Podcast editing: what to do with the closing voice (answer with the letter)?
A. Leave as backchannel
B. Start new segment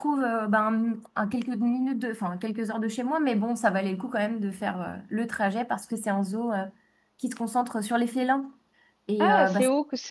B